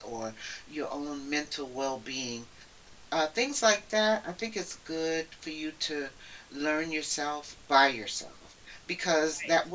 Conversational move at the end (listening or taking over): listening